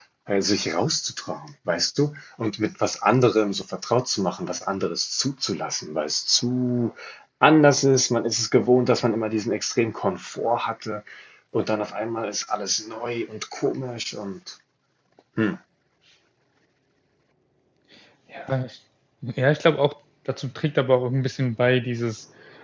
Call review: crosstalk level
none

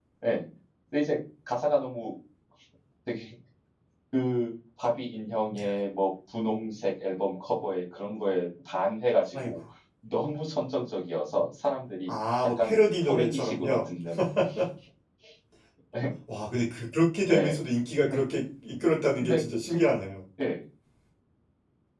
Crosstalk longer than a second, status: present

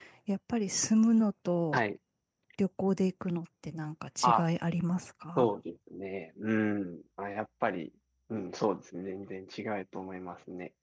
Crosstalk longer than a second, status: none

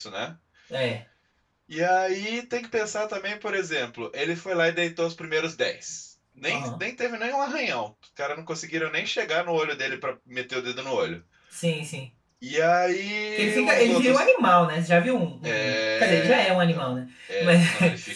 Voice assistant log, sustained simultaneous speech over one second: present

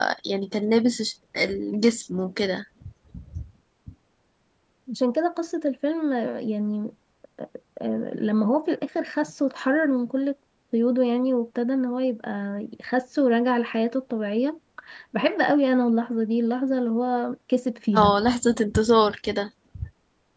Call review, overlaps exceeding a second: none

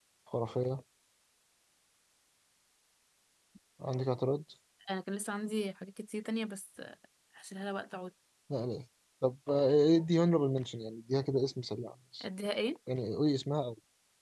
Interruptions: none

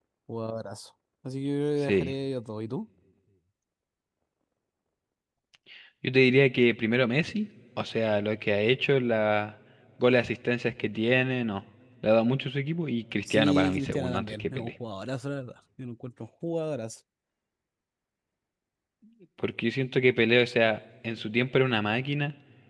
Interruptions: present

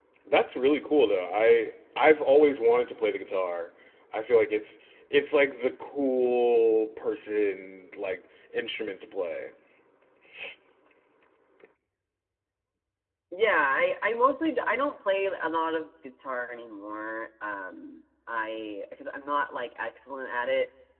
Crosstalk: none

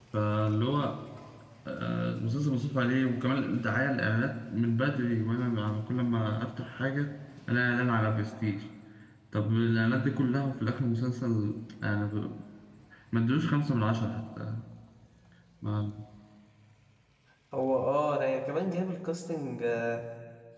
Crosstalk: none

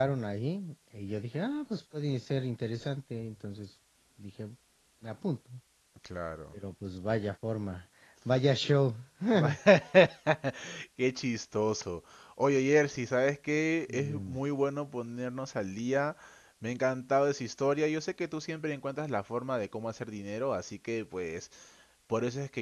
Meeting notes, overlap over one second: none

